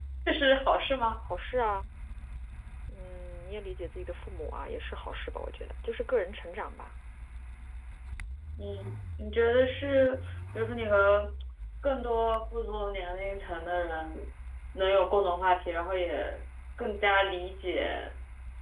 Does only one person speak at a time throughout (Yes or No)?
Yes